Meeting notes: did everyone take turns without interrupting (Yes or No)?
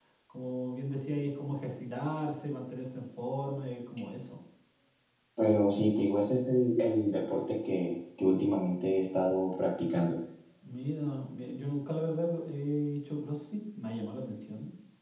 Yes